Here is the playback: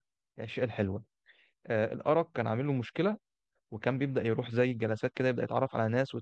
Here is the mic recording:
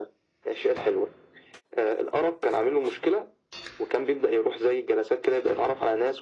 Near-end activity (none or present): none